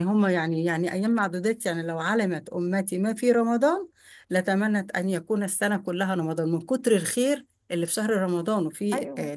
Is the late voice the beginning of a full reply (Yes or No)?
Yes